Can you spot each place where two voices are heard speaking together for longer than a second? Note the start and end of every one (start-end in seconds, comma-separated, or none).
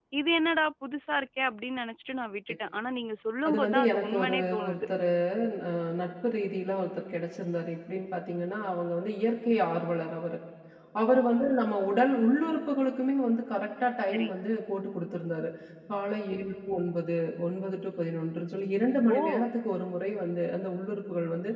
3.5-4.8